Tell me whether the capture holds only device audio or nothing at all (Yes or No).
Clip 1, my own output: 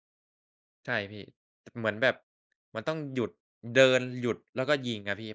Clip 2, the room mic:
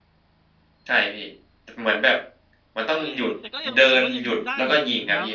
No